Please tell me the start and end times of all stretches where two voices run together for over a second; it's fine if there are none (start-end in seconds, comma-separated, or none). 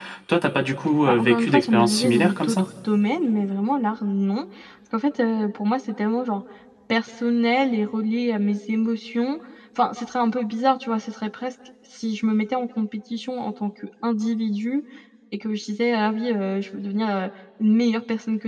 1.1-2.6